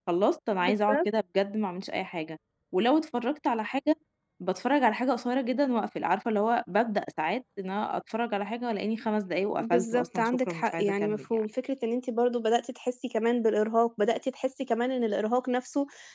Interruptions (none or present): present